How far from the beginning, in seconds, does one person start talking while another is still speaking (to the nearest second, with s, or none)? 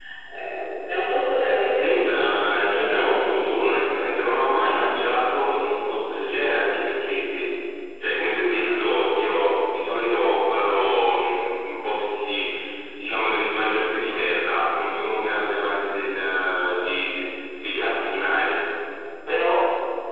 2 s